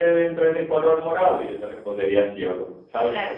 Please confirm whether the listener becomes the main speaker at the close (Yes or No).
Yes